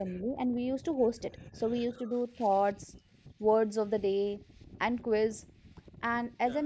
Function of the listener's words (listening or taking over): listening